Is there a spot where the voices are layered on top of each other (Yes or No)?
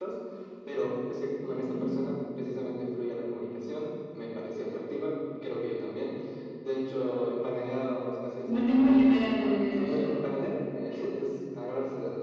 Yes